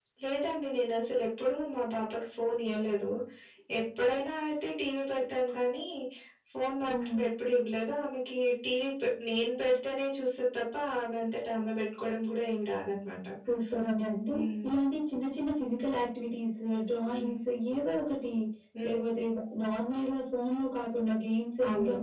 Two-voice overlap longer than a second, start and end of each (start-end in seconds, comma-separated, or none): none